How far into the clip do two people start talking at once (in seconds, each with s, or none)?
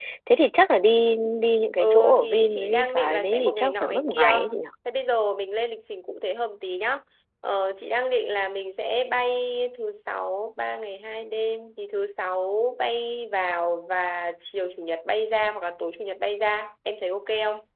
1.8 s